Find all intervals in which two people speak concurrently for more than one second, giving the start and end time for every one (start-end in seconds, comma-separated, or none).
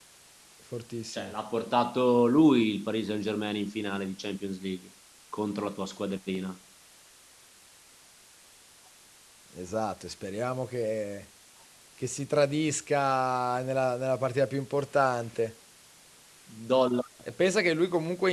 none